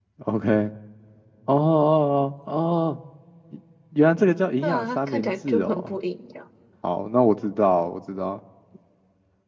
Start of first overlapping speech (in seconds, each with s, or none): 4.6 s